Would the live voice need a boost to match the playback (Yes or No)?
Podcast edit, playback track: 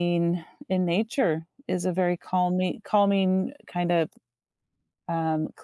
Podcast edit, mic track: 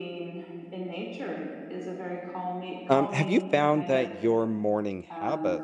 No